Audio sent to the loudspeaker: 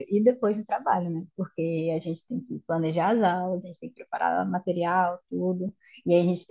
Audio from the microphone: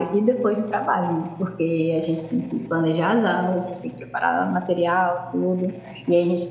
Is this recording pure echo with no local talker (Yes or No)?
Yes